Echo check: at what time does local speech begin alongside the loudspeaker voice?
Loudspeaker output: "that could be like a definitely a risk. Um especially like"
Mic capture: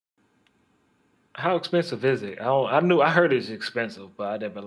1.4 s

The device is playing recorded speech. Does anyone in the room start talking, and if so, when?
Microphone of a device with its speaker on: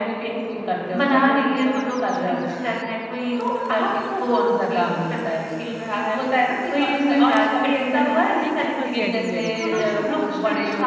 8.4 s

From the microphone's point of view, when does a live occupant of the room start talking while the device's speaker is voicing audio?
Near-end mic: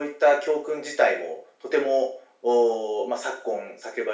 none

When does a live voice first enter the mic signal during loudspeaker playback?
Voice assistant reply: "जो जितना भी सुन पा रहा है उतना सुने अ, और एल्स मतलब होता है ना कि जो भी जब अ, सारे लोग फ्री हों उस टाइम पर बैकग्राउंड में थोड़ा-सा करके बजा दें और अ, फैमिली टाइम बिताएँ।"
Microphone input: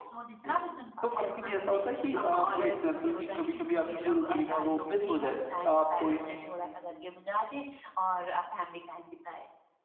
0.4 s

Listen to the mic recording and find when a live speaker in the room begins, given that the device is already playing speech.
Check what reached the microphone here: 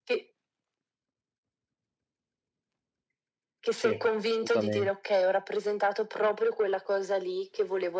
3.7 s

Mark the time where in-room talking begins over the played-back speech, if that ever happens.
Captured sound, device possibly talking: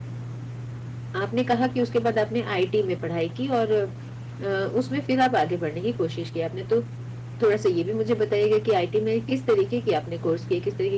1.2 s

